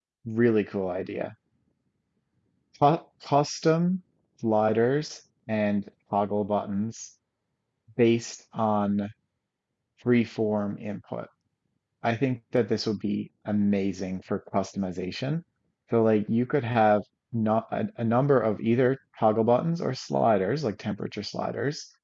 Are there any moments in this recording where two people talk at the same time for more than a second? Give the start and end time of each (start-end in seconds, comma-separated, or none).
none